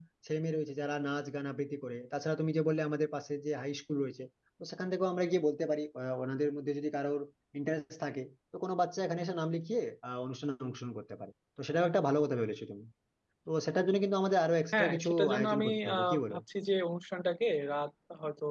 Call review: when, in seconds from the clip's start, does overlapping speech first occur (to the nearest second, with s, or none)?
15 s